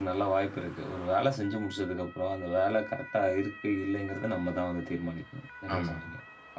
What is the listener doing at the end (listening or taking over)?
taking over